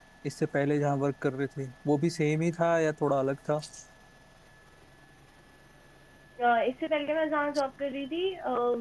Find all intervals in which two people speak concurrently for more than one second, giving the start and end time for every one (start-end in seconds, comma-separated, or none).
none